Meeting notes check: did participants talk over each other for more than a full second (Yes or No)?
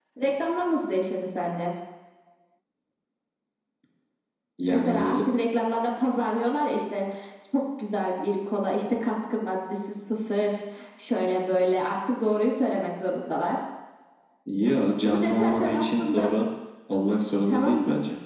Yes